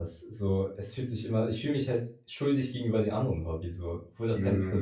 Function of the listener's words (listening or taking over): taking over